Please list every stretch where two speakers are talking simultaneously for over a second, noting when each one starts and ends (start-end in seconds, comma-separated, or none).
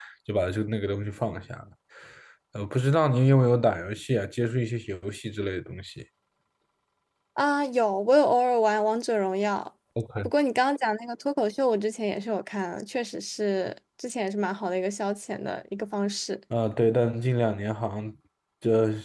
none